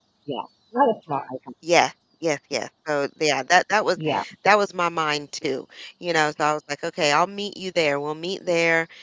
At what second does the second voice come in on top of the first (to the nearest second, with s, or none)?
none